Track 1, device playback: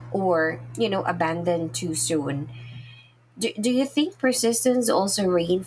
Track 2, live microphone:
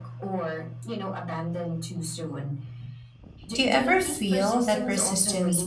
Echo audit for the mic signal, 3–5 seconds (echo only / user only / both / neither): both